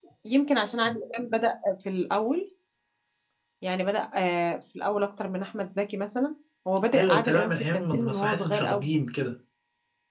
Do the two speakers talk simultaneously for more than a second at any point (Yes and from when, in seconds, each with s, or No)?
Yes, from 6.9 s